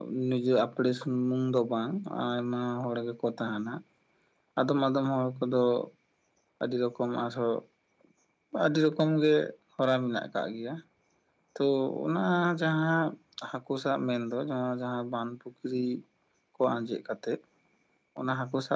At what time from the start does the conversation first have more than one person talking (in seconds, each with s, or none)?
none